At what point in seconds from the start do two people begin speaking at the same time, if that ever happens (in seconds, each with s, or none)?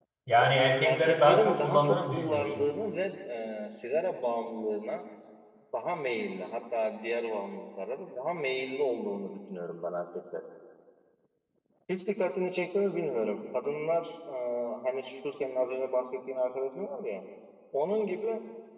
0.8 s